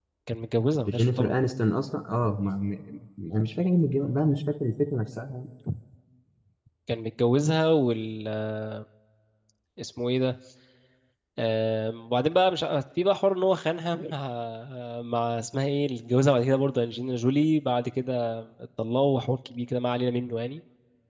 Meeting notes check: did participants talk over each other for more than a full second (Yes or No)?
No